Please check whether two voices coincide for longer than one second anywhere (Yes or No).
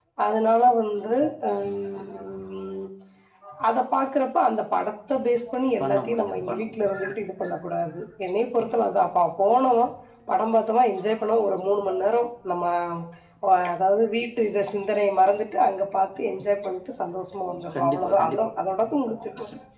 Yes